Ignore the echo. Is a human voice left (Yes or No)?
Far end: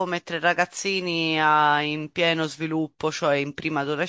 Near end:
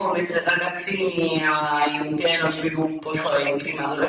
No